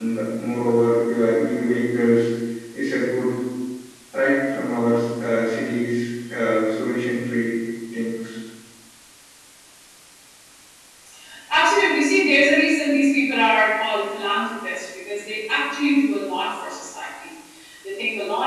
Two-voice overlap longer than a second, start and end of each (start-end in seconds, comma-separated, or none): none